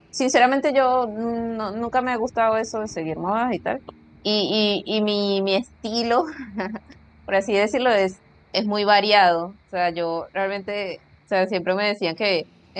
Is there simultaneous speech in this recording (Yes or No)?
No